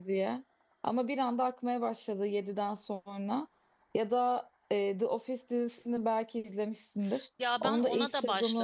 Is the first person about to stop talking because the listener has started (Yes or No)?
Yes